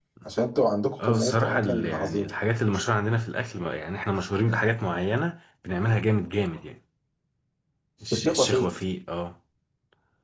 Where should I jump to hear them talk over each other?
1.0 s

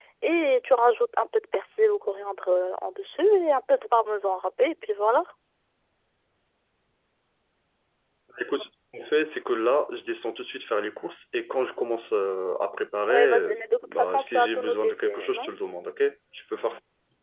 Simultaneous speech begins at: 13.1 s

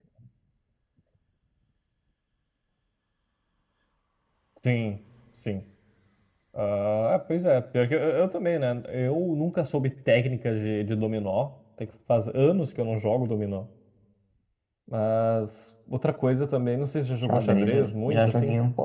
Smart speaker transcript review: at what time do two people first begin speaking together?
17.2 s

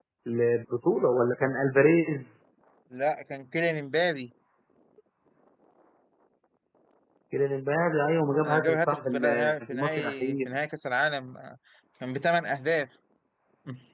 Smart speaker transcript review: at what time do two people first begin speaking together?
8.4 s

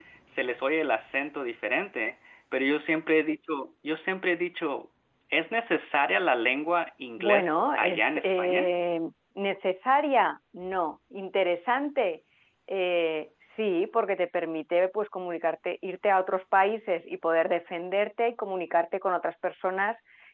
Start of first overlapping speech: 7.2 s

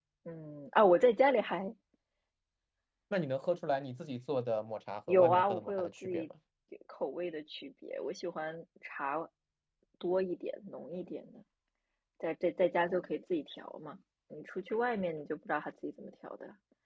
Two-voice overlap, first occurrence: 5.1 s

